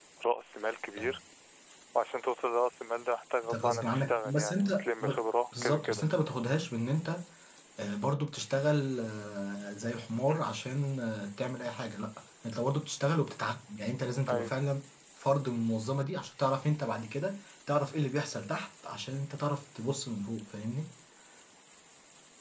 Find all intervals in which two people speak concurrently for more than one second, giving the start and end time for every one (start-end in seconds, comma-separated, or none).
3.4-5.1